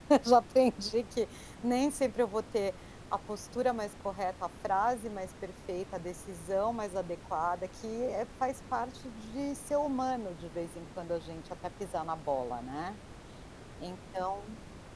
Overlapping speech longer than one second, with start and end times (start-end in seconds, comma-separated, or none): none